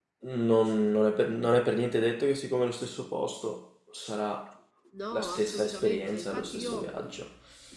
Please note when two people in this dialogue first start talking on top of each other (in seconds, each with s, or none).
5.1 s